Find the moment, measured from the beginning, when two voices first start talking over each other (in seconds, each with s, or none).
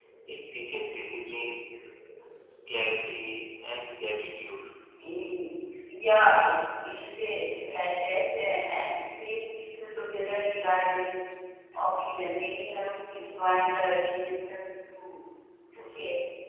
none